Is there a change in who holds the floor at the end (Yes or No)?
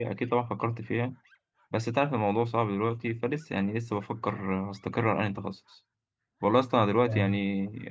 No